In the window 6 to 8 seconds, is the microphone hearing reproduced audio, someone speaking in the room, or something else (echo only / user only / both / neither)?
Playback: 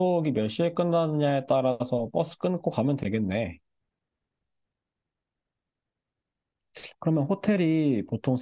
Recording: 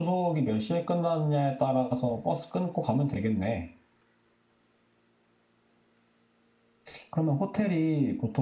echo only